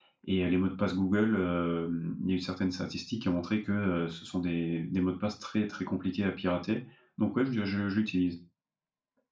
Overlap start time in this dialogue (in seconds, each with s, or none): none